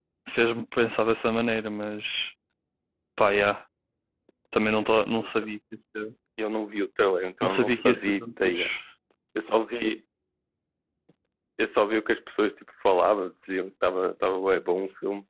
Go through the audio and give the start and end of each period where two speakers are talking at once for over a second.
7.4-8.7

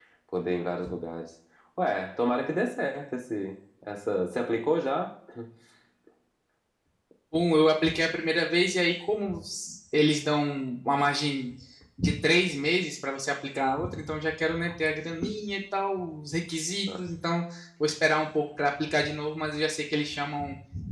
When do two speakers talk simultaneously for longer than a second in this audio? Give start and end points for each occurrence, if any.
none

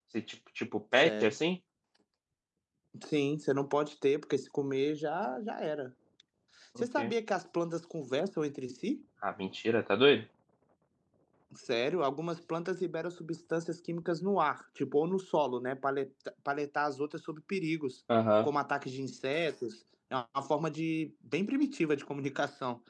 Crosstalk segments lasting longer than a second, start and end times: none

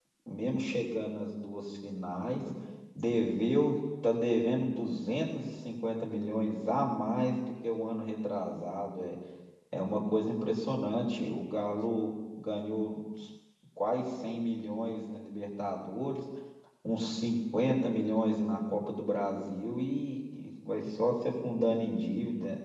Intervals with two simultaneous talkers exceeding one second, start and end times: none

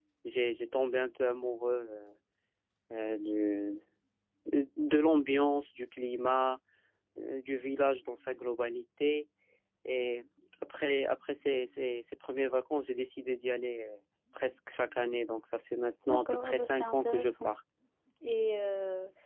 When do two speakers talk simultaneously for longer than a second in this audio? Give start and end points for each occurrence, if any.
16.1-17.5

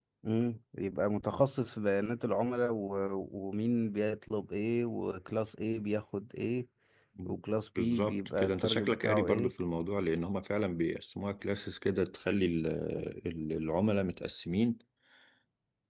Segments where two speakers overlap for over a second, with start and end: 7.8-9.5

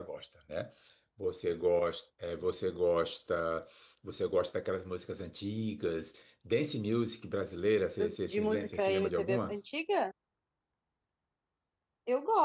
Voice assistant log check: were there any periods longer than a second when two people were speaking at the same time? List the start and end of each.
8.3-9.6

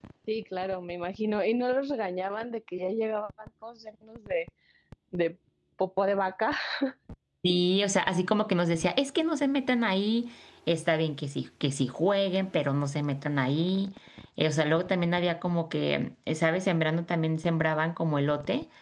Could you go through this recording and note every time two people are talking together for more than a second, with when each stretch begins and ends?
none

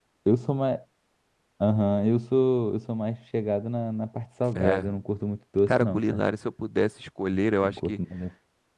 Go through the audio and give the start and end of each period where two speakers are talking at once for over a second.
none

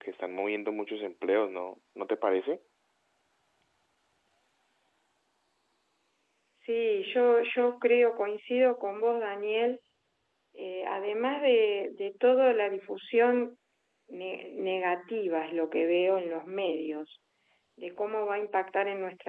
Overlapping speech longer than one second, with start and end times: none

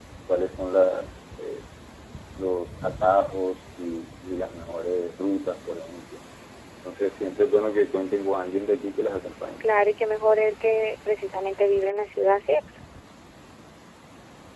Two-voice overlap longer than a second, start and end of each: none

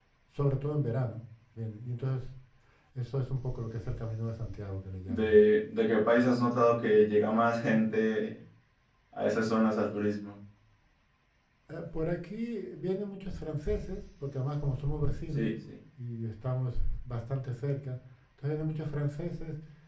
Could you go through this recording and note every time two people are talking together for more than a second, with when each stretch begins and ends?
none

